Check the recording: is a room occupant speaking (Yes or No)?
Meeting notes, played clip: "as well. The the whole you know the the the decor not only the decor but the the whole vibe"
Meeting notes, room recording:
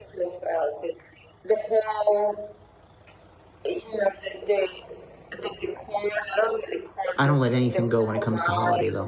Yes